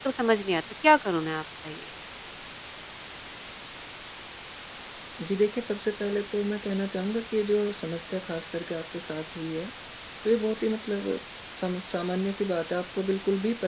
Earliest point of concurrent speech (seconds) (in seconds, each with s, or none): none